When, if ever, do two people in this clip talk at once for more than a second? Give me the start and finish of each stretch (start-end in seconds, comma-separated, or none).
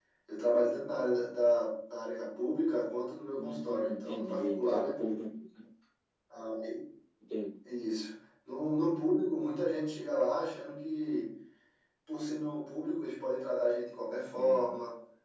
3.4-5.0